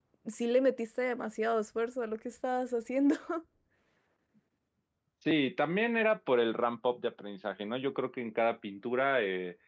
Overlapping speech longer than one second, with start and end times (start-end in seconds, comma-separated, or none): none